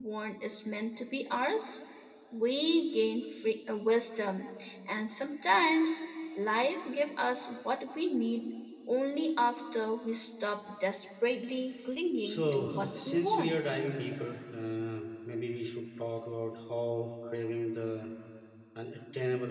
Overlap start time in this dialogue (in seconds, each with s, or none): 12.2 s